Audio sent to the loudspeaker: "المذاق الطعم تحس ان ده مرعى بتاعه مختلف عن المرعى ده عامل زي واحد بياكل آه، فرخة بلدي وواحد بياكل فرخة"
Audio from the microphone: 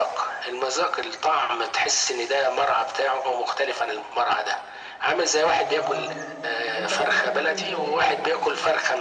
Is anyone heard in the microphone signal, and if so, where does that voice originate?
both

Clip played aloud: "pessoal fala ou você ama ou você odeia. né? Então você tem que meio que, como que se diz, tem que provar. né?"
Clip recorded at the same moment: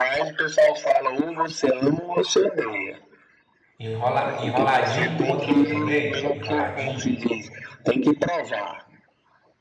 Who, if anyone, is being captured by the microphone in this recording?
both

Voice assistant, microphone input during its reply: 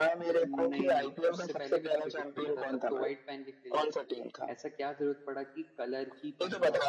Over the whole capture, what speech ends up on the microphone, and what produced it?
both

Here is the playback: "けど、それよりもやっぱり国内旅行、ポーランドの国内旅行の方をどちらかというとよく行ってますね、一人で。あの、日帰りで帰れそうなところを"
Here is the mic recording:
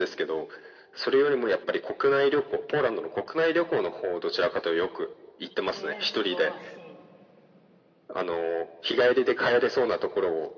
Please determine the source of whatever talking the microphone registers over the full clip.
both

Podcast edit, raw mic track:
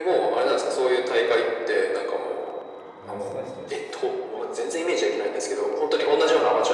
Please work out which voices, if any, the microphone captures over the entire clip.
both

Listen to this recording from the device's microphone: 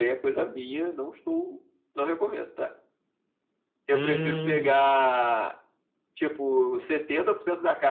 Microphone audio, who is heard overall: both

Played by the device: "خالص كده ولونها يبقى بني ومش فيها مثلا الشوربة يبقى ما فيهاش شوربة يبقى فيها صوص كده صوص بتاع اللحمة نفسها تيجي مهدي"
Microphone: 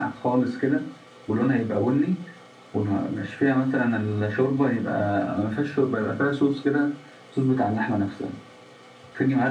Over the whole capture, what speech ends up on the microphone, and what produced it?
echo only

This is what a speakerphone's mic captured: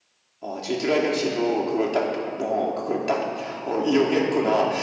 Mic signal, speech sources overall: echo only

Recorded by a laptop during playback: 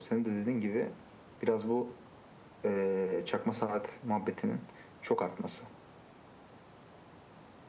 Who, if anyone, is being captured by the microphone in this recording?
echo only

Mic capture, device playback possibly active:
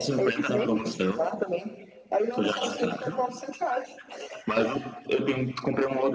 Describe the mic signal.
echo only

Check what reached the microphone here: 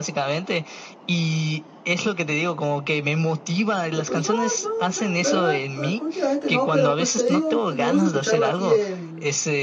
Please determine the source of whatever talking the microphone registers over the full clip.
both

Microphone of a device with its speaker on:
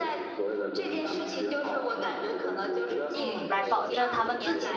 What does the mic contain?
both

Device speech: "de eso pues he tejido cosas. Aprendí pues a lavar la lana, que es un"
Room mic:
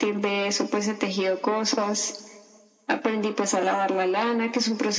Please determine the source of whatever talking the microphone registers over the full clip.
echo only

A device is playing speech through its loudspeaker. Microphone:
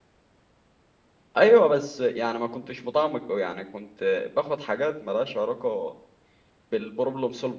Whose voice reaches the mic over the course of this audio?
user only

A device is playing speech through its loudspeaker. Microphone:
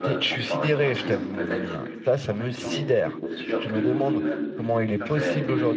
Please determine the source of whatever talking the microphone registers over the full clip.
both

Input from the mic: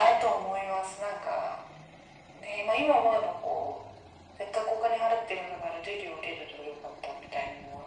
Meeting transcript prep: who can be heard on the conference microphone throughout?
echo only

